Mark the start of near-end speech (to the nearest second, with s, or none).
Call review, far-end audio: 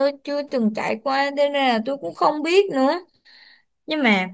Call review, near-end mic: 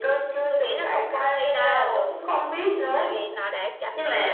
0 s